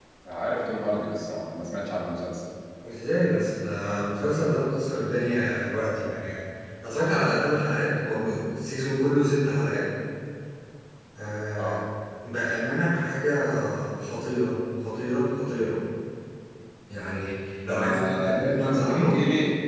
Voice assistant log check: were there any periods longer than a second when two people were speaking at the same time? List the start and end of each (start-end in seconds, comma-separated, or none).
17.7-19.2